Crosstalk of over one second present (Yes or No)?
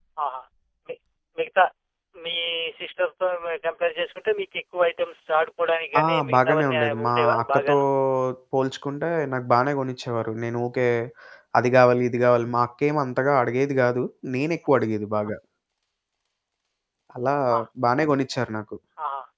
Yes